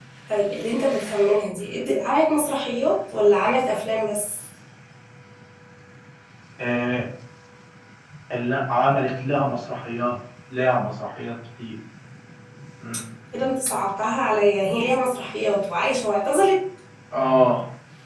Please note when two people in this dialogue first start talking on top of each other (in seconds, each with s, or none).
none